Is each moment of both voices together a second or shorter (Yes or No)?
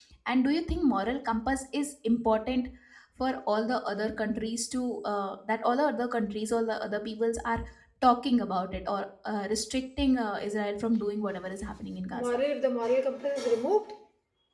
Yes